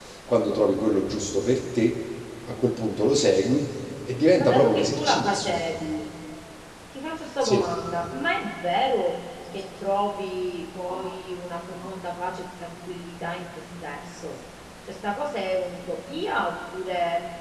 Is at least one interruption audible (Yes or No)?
Yes